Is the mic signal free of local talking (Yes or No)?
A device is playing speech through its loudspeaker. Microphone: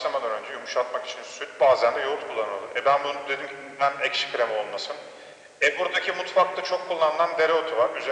Yes